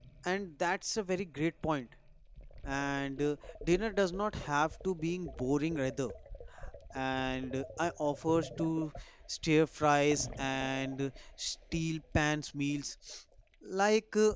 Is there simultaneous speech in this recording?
No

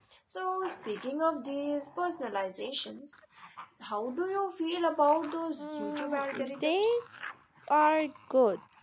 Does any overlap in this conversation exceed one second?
Yes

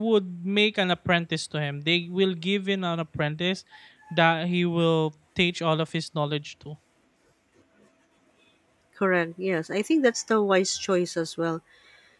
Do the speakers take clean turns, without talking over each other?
Yes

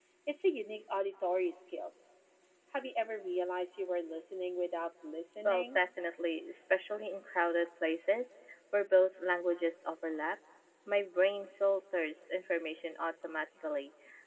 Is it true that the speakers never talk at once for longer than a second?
Yes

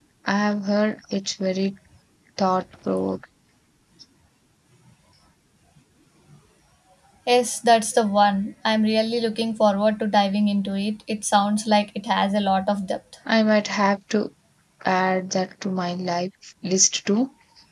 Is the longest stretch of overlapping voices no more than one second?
Yes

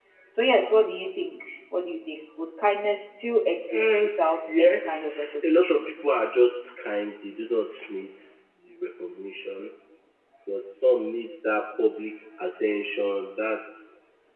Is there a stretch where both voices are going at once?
Yes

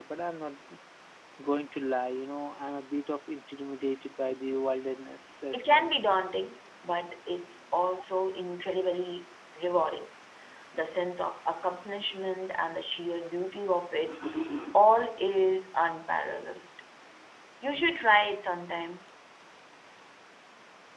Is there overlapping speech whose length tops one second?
No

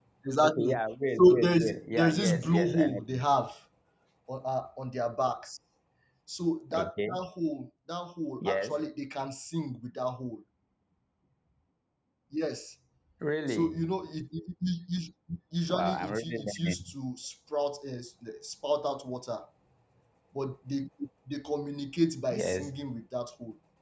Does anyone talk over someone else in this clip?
Yes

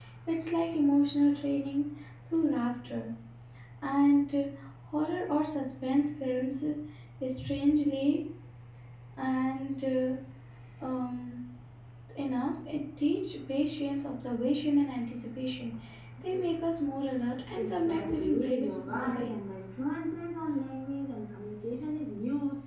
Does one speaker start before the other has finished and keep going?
Yes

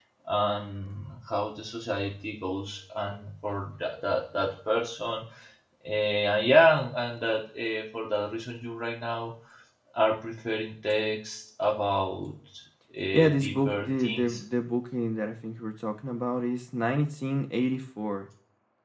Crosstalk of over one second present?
Yes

